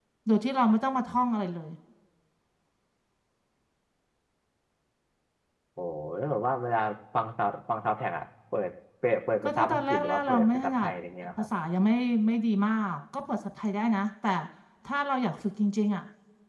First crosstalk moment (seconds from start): 9 s

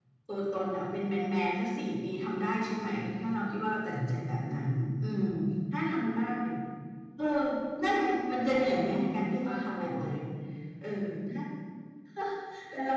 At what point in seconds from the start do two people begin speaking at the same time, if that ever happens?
8 s

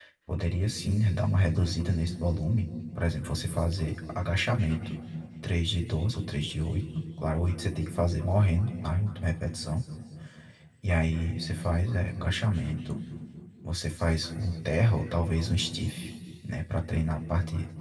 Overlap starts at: none

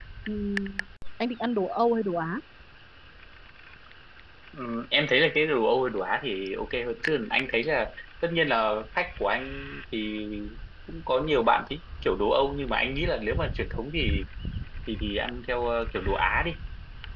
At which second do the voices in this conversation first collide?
none

